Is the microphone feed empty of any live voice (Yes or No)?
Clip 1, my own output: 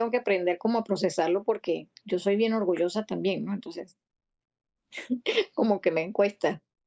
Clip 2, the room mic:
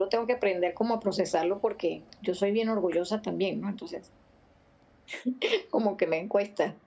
Yes